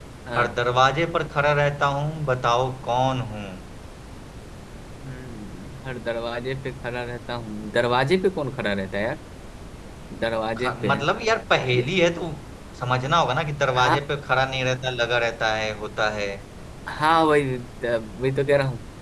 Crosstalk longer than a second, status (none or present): none